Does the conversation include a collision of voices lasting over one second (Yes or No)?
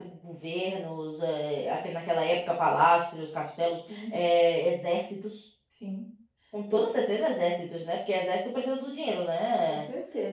No